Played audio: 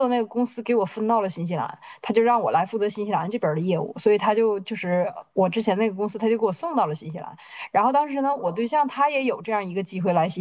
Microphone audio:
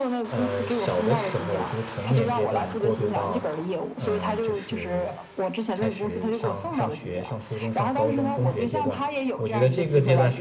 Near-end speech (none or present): present